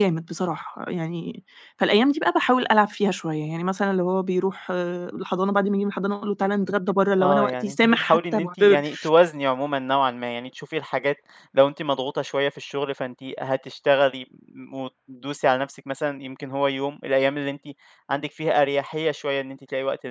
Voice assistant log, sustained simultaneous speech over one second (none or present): present